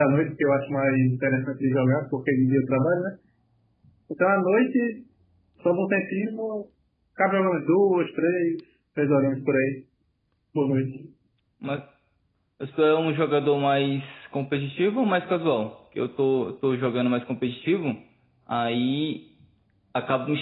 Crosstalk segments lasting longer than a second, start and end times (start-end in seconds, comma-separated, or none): none